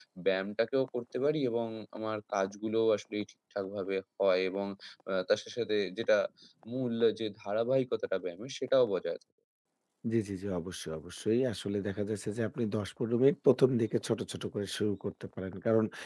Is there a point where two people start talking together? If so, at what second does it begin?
none

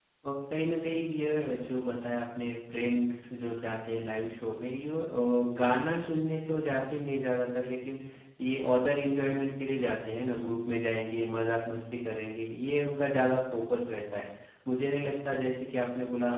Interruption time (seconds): none

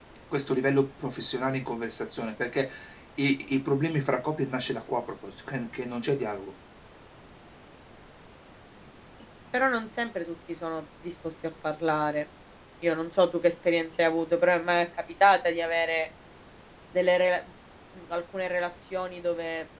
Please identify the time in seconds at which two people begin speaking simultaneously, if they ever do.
none

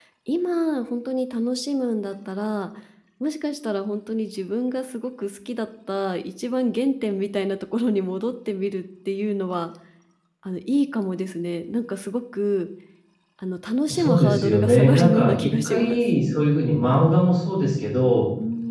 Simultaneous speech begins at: 14 s

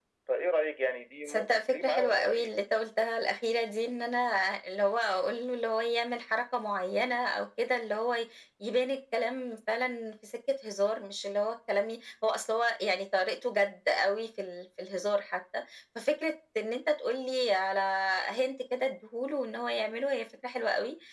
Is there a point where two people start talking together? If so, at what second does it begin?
1 s

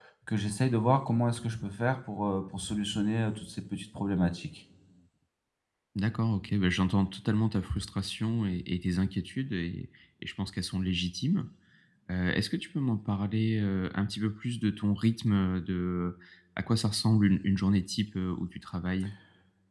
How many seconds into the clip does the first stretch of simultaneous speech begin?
none

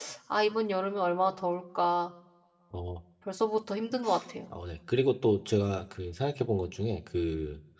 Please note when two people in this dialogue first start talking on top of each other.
none

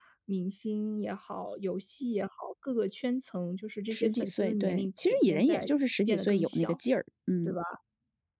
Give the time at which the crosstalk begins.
4 s

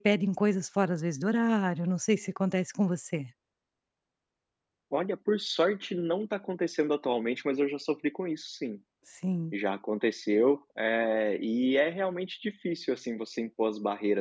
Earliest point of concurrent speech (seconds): none

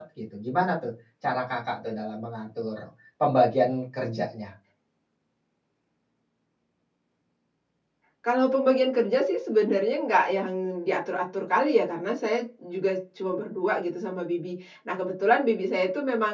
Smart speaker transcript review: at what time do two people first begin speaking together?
none

